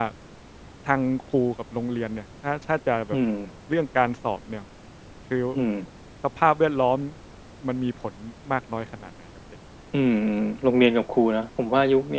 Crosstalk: none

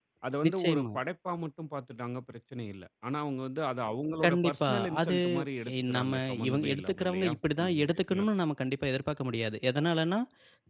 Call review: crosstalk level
present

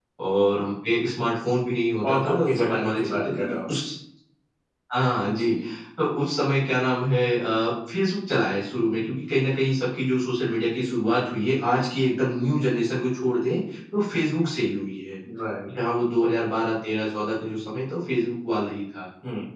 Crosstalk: present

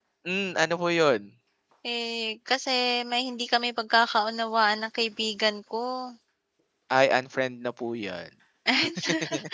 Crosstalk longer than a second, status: none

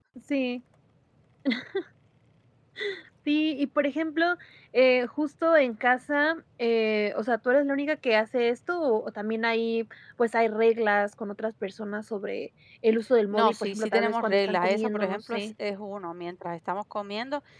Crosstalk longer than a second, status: present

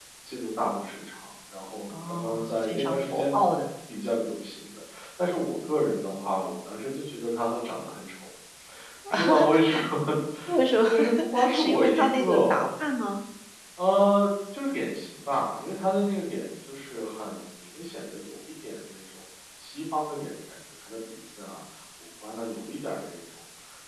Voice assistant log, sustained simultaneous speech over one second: present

